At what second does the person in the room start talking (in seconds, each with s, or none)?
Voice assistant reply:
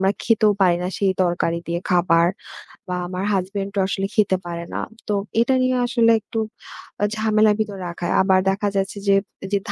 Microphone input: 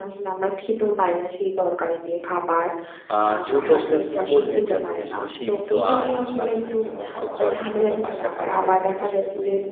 3.1 s